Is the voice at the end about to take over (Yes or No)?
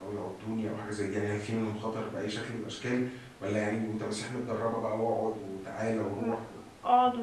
Yes